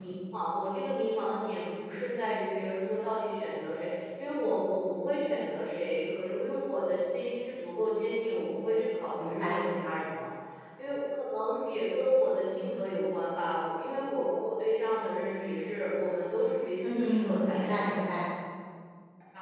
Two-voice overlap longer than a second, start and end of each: 16.8-18.1

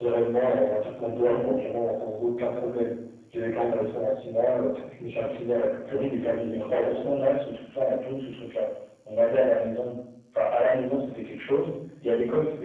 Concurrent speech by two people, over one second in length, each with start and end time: 5.9-7.2

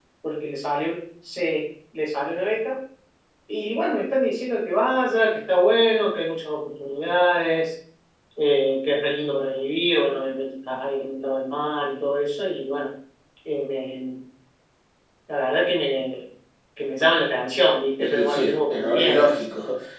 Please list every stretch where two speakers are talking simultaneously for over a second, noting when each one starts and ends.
18.0-19.3

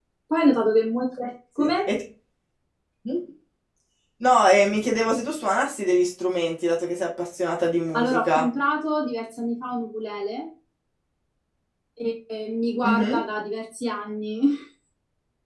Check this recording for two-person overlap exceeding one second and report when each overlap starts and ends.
none

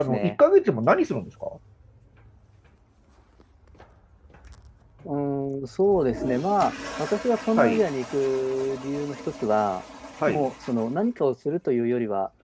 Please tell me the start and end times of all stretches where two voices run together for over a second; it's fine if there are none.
none

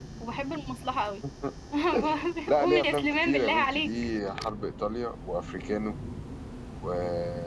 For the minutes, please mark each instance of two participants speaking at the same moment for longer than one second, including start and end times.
2.6-3.9

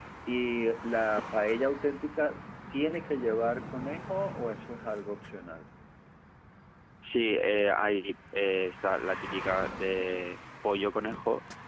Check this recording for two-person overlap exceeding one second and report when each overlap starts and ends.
none

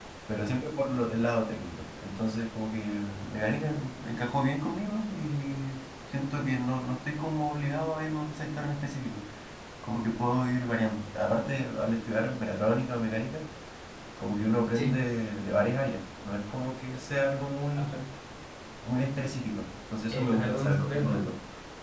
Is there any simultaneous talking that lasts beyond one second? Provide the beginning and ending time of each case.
20.1-21.3

